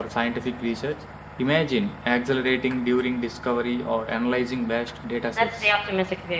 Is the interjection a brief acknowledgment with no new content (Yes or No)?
No